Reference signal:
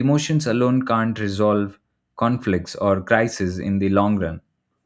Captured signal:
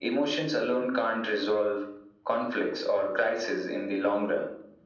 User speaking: No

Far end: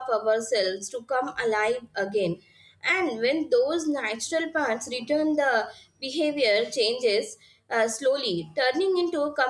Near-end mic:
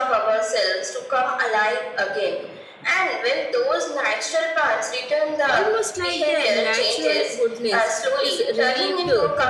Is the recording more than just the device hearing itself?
Yes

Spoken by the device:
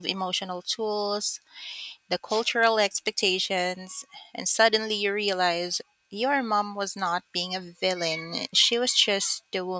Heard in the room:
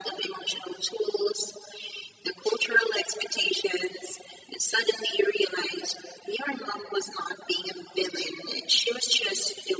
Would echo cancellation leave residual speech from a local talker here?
No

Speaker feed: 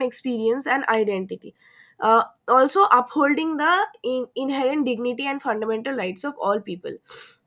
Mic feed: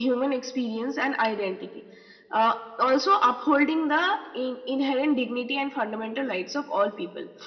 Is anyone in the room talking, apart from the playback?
No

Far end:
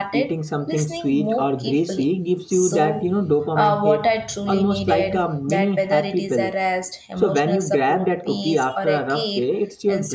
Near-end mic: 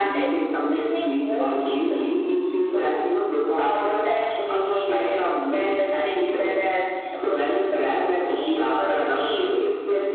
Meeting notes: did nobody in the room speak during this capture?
Yes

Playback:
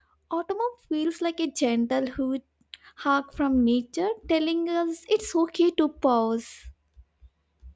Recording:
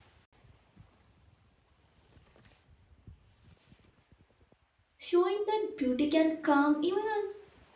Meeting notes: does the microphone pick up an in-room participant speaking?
Yes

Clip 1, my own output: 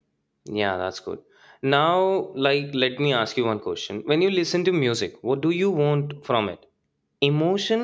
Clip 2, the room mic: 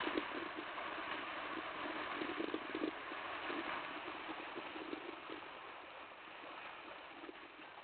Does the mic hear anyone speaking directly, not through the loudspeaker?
No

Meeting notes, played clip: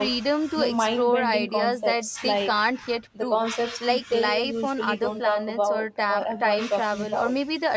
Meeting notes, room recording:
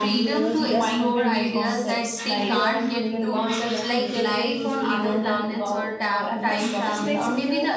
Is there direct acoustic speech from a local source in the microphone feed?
Yes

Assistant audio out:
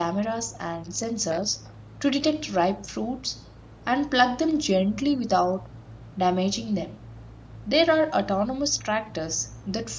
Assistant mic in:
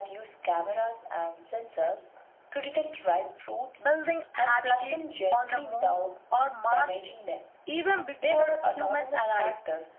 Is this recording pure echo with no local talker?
No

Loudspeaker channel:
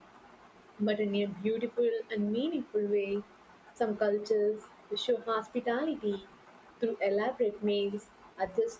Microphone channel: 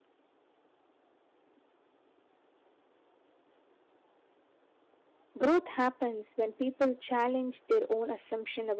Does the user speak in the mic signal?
Yes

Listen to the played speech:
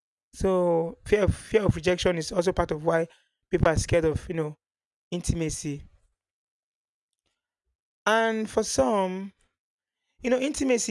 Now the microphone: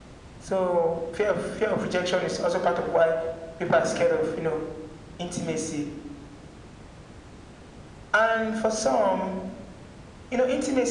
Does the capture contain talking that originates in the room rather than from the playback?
No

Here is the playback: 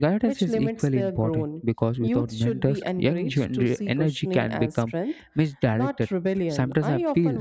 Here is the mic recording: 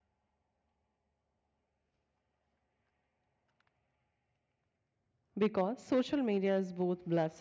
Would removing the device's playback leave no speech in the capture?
No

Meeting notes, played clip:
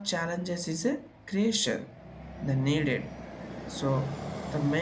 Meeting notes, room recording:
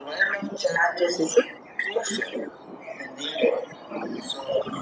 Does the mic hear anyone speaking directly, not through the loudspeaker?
No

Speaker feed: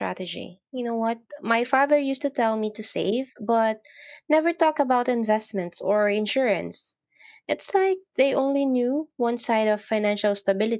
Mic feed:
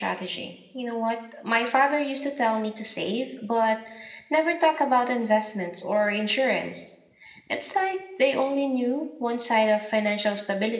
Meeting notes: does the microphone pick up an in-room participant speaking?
No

